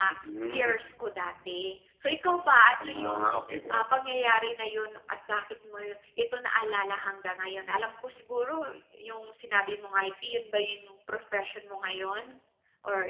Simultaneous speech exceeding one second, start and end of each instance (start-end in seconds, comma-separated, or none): none